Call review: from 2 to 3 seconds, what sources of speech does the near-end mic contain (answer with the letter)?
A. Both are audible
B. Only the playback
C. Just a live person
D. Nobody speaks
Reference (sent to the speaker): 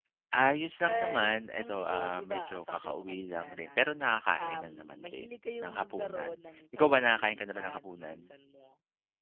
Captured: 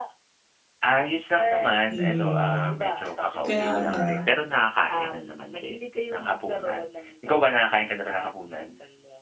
A